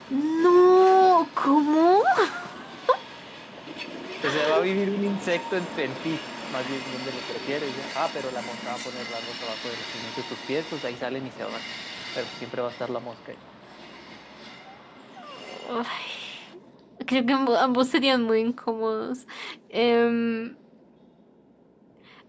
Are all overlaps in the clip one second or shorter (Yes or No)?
Yes